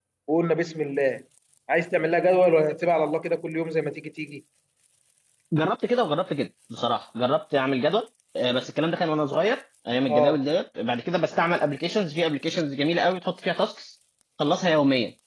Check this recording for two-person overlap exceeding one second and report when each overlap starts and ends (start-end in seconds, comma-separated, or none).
none